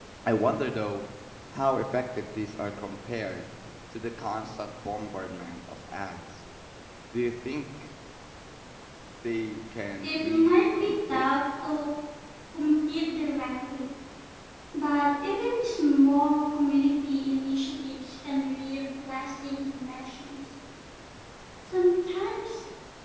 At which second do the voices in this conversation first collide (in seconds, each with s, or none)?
10.0 s